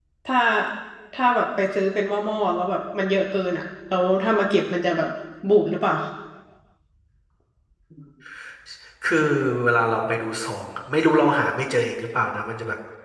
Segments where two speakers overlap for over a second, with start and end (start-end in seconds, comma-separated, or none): none